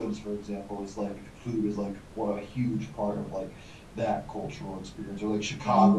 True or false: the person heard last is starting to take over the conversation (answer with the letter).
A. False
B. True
B